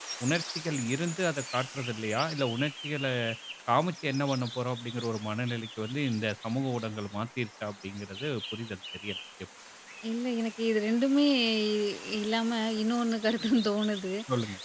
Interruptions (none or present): none